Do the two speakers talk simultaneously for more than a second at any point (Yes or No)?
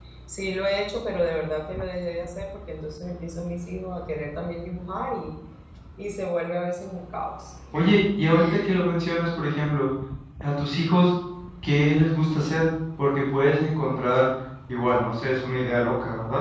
No